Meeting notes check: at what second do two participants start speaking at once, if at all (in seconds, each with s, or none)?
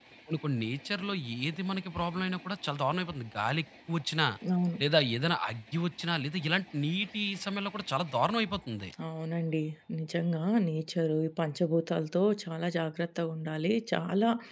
none